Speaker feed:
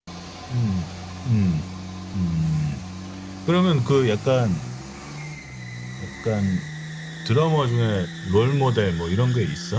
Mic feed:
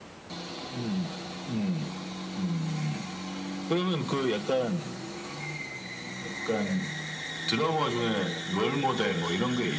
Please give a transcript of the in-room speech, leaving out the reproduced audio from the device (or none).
none